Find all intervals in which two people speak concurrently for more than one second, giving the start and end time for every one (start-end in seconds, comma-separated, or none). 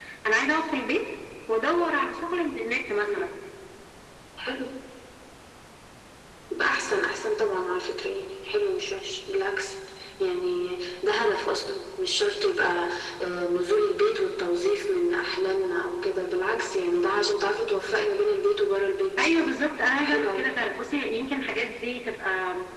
none